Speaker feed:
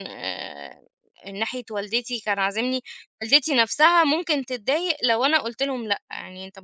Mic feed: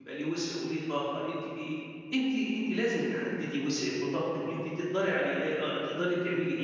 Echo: none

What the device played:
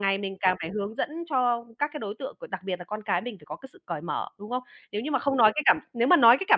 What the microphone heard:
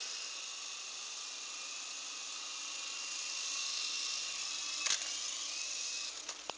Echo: none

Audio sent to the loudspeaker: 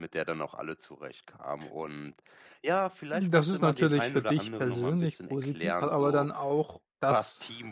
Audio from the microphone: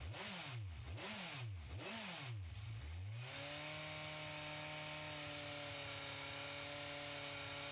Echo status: none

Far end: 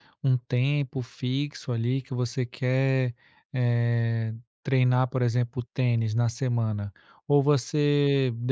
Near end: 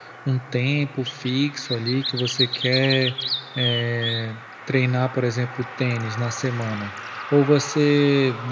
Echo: present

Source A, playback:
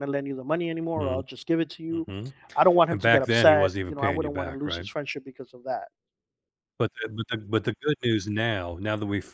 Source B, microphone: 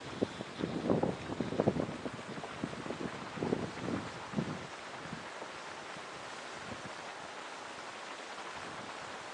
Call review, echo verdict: none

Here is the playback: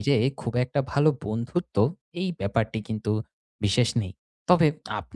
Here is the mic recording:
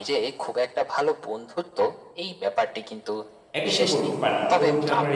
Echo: present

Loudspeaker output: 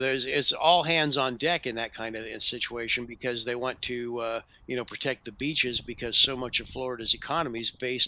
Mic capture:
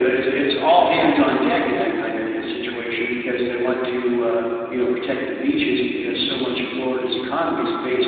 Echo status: present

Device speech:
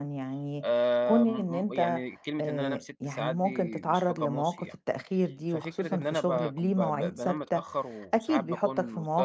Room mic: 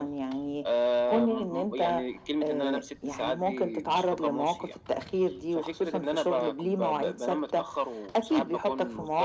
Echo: present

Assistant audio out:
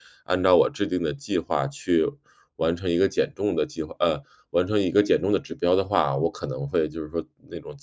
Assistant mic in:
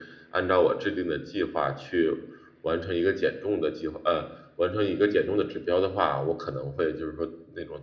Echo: present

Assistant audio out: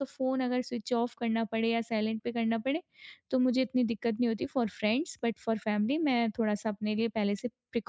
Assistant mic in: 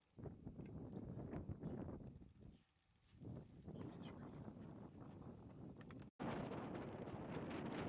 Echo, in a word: none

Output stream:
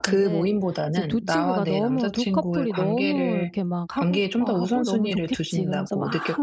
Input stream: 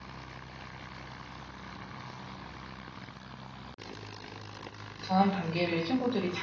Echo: none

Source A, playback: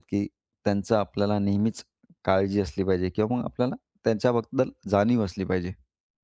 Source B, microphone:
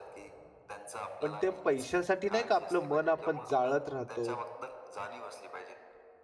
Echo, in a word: present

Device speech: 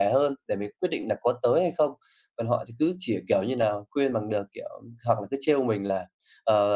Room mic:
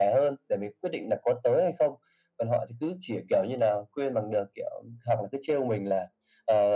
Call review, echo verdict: present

